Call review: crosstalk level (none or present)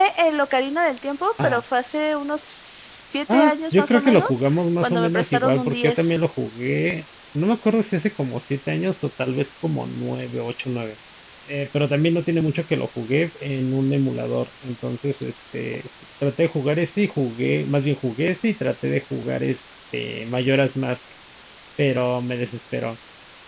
present